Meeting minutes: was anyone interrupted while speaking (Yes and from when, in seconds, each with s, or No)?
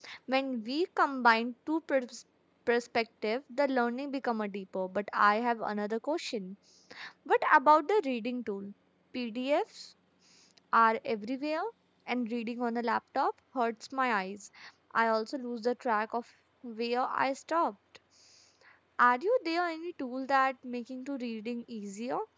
No